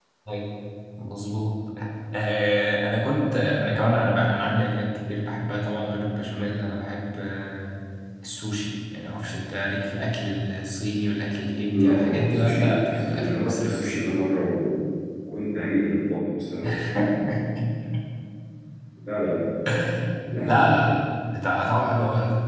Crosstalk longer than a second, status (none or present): present